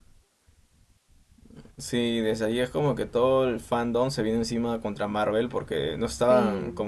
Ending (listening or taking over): listening